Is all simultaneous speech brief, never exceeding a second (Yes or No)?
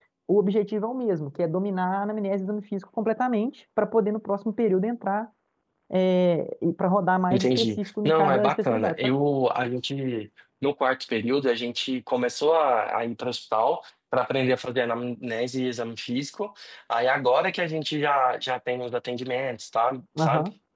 No